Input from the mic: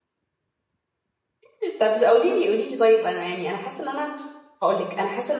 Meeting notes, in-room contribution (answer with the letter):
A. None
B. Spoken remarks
B